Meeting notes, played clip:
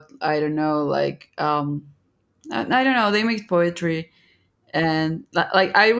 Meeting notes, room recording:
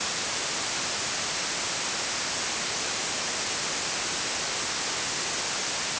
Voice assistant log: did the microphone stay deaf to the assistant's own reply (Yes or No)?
Yes